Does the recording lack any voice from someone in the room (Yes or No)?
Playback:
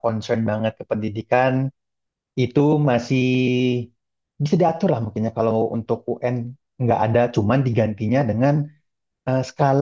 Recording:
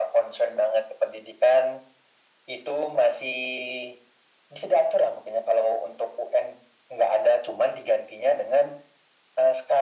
Yes